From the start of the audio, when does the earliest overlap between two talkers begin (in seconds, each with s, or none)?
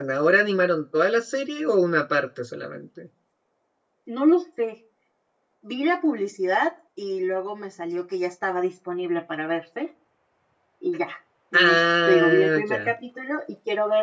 11.5 s